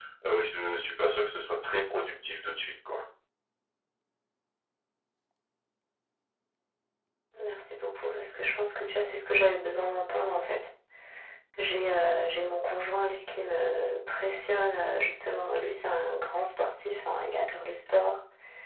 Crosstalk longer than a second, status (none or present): none